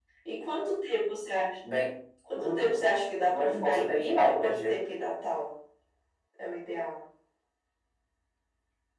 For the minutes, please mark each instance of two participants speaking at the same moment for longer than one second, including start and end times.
3.2-4.8

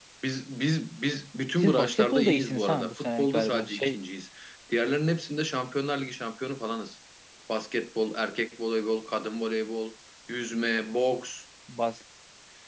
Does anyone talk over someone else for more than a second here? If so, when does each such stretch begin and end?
1.6-4.0

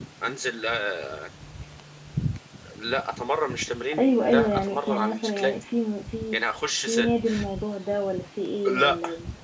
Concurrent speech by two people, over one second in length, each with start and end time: 4.0-5.5

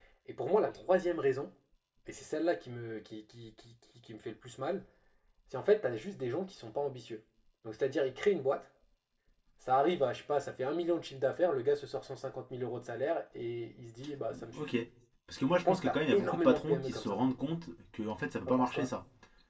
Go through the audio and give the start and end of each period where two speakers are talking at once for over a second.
15.7-17.2

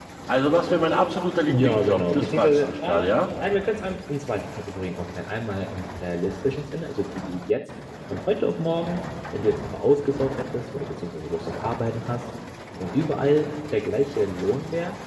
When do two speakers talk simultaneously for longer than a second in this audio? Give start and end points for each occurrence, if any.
1.5-3.1

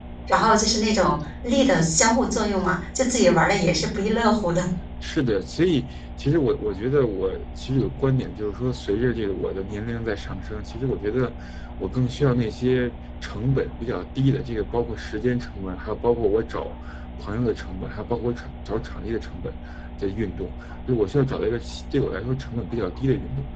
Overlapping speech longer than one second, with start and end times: none

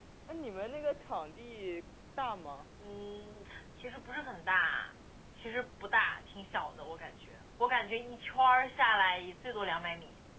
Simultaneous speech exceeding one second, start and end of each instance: none

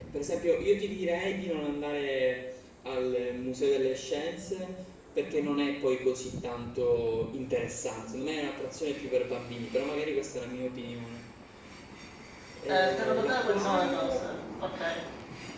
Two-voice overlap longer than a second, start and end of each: 12.7-14.3

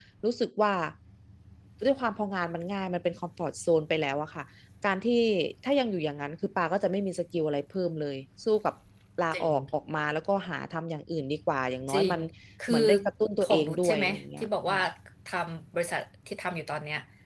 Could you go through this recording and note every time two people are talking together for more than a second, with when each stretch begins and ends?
13.4-14.8

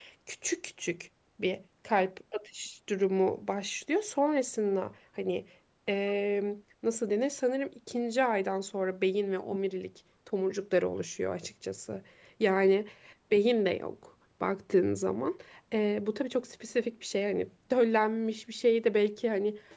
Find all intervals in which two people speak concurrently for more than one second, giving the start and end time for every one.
none

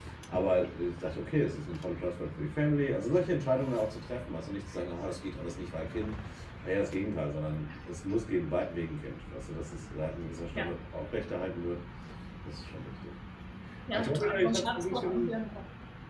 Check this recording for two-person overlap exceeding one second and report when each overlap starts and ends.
13.9-15.3

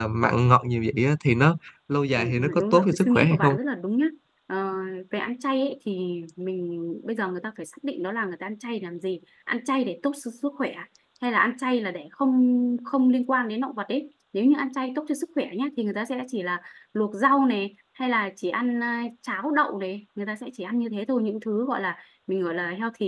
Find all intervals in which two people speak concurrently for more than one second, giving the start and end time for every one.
2.2-3.6

